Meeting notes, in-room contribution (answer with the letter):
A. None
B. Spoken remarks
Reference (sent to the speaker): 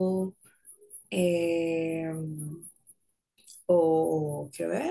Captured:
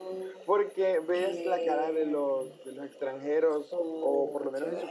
B